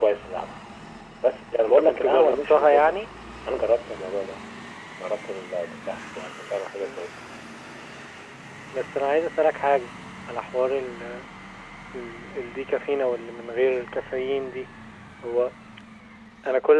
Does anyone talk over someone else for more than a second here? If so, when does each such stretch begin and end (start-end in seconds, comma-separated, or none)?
1.7-3.0